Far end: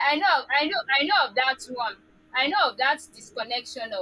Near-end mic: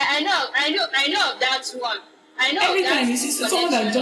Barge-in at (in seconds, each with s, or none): 2.6 s